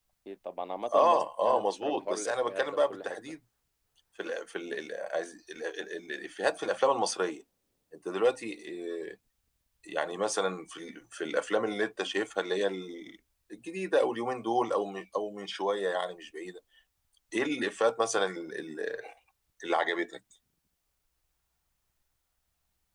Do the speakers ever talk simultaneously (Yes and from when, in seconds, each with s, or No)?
Yes, from 0.9 s